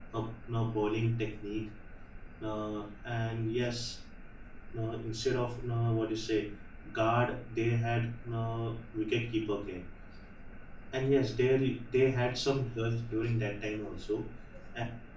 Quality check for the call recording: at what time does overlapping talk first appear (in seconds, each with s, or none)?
none